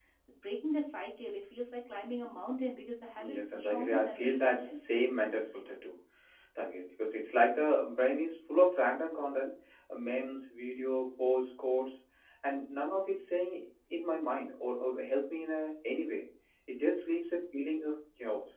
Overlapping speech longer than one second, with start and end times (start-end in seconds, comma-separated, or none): 3.2-4.8